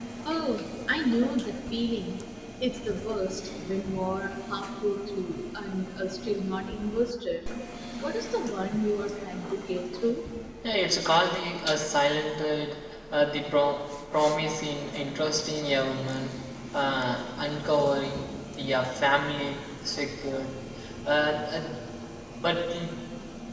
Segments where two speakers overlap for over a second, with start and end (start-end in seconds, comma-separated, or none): none